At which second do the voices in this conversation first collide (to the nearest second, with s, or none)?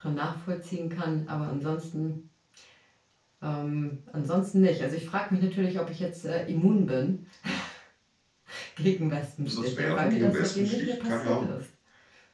9 s